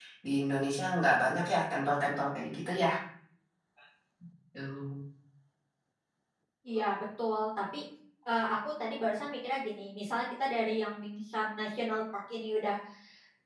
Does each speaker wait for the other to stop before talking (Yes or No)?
Yes